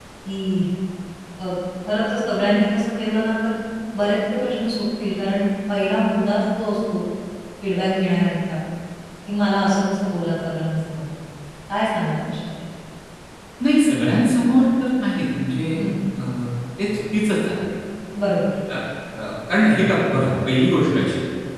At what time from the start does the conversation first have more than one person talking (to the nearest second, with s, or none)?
none